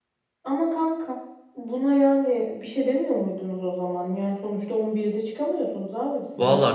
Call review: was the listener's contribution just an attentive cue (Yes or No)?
No